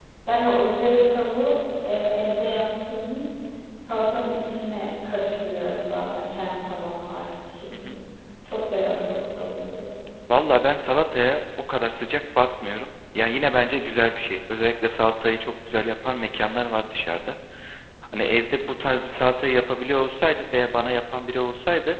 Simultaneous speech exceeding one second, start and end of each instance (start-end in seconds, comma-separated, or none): none